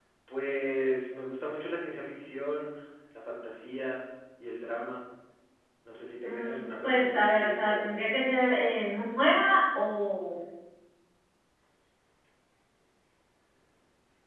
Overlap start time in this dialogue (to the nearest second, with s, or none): 6 s